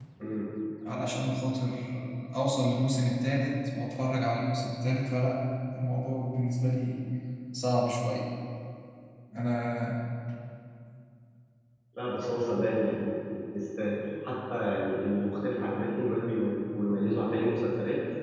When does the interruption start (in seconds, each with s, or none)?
none